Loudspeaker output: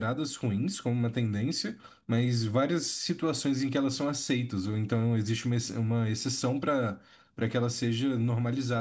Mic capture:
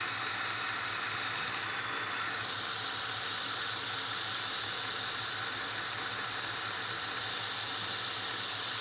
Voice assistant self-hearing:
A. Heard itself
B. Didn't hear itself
B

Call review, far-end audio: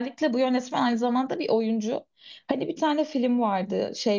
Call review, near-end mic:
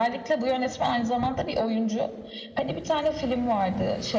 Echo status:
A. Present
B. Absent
A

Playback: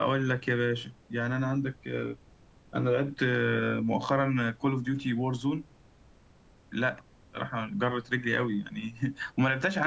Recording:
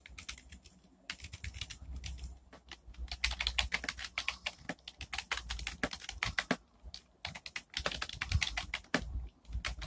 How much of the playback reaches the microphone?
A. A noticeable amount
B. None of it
B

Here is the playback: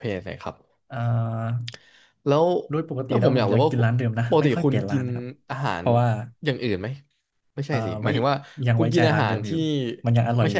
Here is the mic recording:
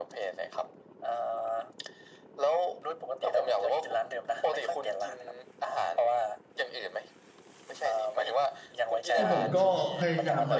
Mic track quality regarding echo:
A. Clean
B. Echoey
B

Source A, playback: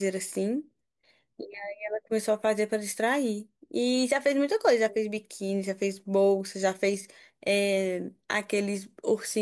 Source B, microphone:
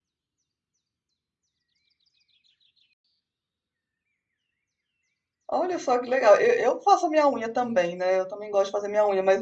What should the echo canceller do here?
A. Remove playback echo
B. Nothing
B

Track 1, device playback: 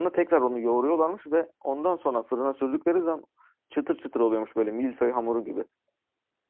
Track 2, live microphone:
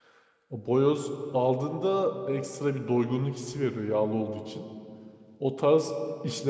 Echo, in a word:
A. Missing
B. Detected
A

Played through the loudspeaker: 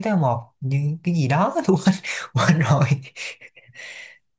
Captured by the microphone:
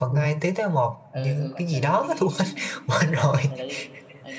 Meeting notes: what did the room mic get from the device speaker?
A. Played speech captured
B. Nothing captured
A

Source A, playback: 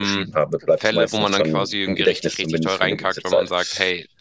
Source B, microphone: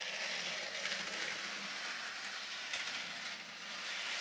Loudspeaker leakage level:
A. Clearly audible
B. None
B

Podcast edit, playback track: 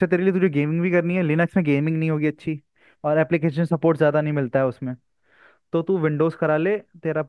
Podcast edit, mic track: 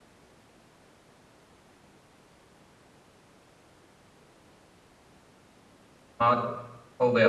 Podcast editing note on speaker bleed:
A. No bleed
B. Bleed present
A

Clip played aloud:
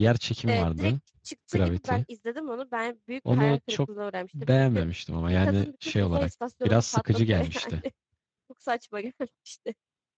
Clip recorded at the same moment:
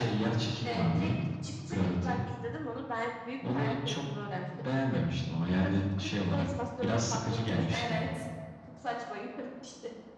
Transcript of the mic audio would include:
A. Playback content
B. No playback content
A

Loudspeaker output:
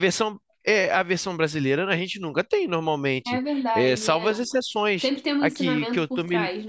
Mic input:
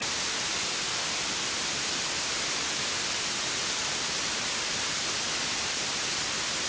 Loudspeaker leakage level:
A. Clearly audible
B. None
B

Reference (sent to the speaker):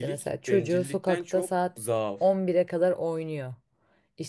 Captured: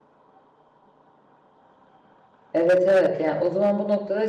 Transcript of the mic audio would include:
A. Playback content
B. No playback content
B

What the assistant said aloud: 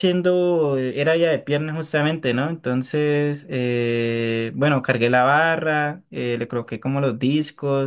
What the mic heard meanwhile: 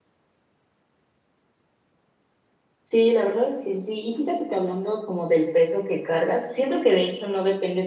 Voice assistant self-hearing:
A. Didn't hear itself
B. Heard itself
A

